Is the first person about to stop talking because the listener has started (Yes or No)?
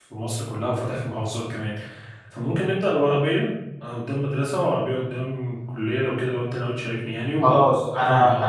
Yes